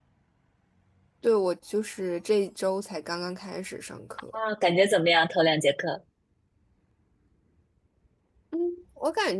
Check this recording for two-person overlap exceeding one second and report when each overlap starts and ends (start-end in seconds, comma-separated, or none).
none